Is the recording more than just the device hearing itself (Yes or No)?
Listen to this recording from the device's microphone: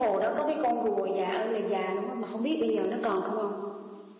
No